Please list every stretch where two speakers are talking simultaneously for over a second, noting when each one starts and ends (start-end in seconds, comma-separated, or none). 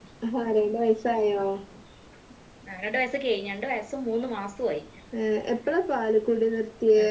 none